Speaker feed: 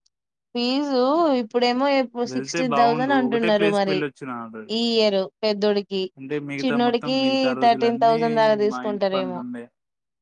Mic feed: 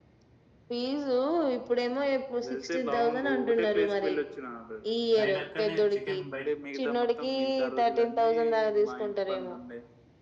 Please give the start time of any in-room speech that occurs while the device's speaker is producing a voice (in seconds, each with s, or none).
5.2 s